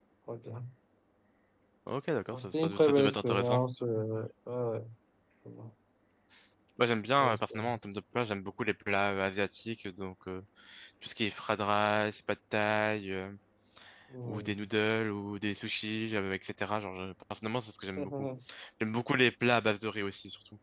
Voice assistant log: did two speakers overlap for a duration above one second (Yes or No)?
Yes